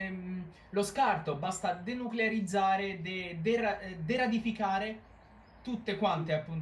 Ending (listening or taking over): taking over